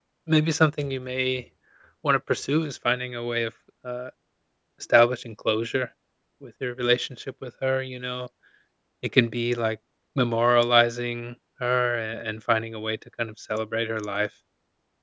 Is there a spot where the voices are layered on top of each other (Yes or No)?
No